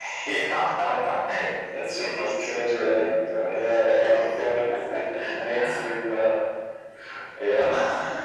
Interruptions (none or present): present